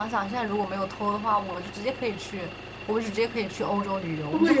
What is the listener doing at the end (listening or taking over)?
taking over